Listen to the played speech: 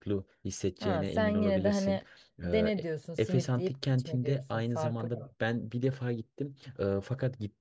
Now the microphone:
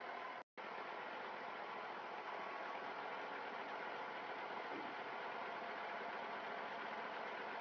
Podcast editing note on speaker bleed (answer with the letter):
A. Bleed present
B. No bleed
B